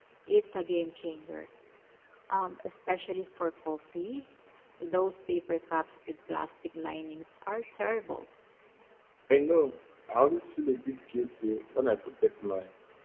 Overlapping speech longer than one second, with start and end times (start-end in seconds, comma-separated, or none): none